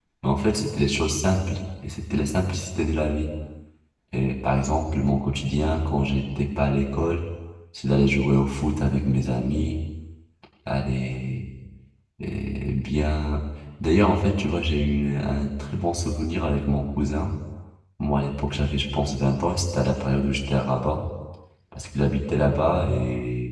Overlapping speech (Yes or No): No